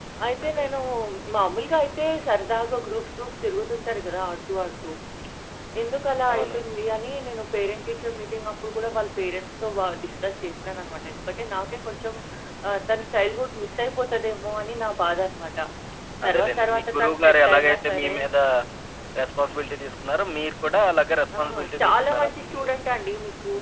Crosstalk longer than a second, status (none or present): present